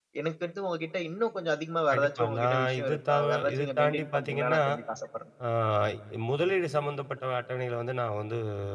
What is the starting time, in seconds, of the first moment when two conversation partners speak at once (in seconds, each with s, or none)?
1.9 s